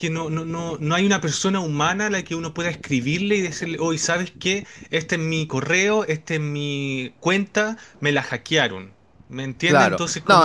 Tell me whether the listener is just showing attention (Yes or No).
No